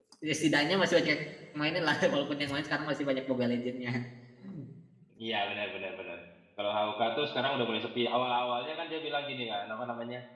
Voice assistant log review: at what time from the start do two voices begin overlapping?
none

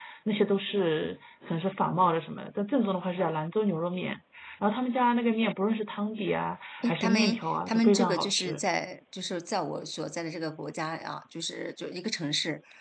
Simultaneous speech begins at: 6.8 s

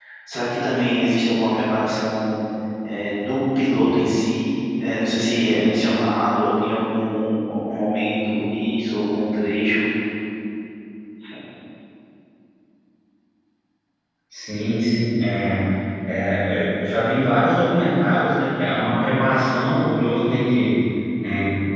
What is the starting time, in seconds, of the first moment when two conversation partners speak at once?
none

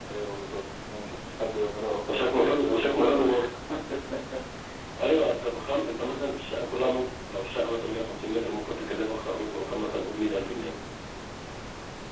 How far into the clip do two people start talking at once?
2.0 s

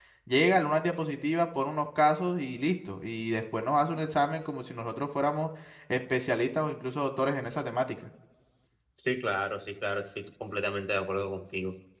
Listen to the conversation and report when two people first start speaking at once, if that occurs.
none

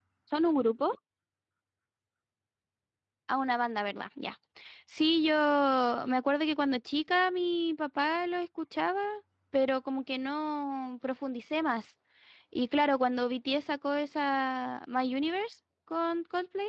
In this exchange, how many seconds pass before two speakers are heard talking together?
none

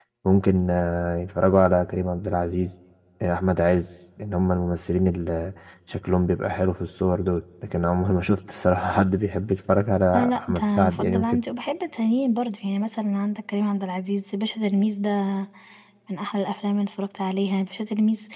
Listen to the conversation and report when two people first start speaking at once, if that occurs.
10.1 s

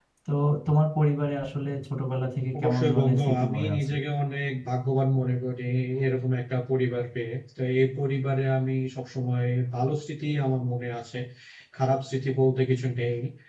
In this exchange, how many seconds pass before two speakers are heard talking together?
2.5 s

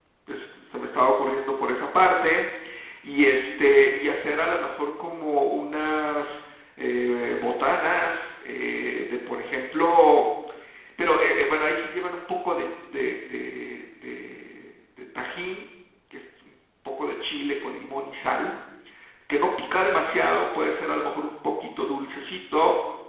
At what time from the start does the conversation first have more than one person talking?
none

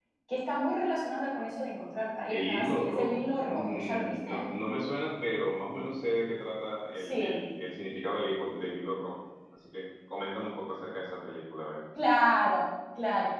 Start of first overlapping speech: 2.3 s

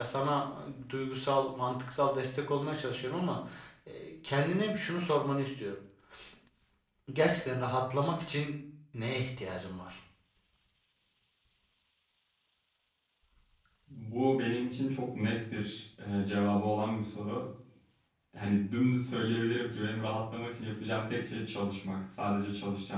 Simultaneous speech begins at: none

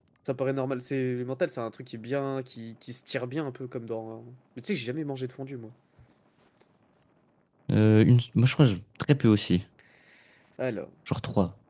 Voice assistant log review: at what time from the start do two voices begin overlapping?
none

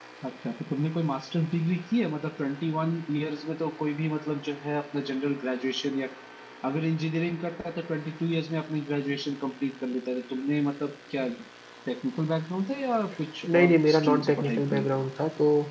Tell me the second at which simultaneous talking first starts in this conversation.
13.4 s

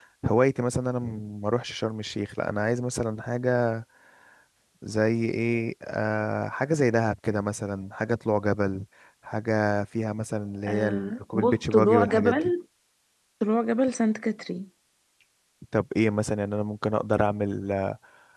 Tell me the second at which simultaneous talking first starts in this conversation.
10.6 s

